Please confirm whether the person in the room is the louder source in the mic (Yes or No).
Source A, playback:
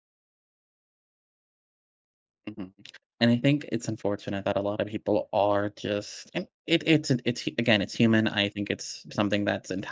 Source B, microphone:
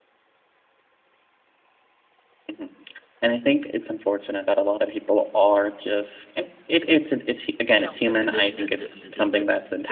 No